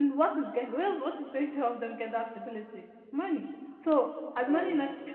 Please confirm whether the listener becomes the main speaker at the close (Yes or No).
No